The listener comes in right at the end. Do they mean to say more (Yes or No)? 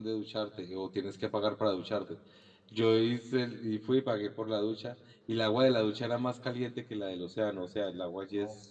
No